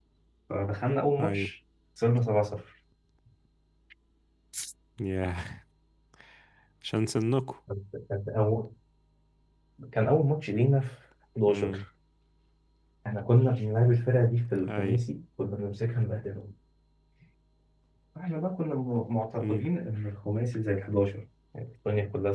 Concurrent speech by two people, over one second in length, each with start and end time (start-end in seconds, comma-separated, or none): none